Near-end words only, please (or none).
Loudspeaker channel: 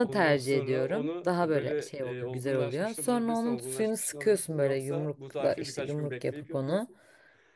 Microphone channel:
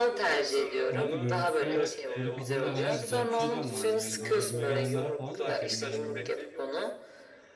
Bu arada görüntüsü olarak böyle kafamda bayağı güzel bir şey canlandı. Yani böyle evime gelenlere falan da yaparım ben bunu.